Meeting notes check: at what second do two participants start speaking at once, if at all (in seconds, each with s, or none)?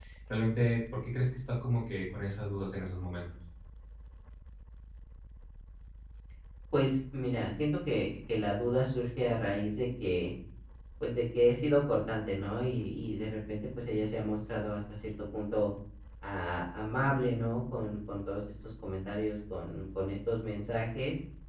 none